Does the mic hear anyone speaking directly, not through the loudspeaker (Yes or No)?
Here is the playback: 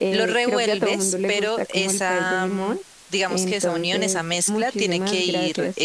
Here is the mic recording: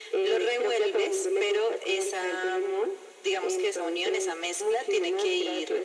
No